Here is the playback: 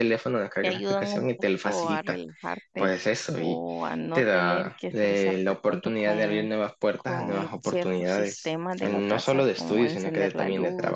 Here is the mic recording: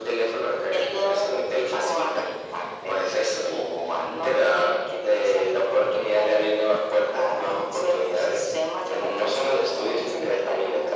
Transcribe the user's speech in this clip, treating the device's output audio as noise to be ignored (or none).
none